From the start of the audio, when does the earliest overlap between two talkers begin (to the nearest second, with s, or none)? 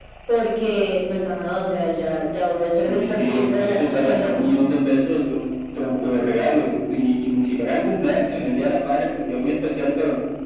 3 s